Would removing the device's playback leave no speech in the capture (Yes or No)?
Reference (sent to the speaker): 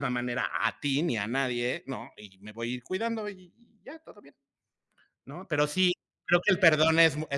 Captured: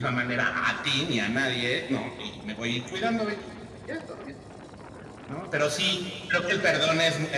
Yes